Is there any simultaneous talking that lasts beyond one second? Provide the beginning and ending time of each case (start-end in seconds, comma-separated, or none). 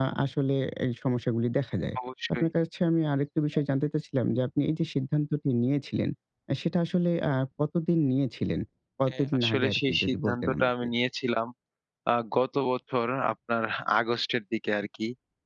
9.1-10.8